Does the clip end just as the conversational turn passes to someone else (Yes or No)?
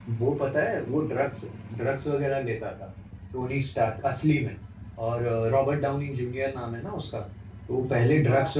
No